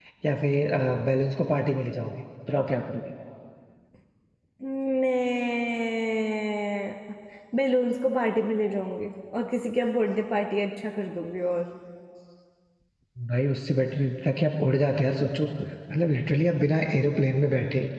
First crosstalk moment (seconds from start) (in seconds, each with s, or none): none